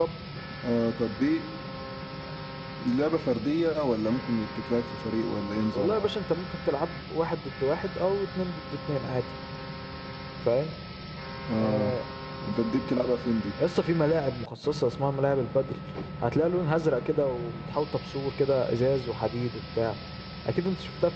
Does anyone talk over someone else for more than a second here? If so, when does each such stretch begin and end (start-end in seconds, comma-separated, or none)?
none